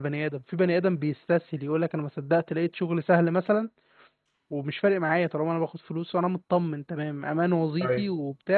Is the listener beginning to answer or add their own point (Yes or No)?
No